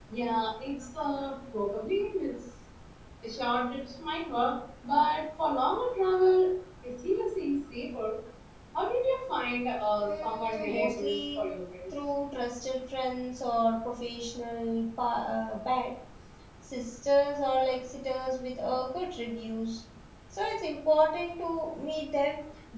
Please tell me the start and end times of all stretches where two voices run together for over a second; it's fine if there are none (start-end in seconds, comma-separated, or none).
10.0-11.4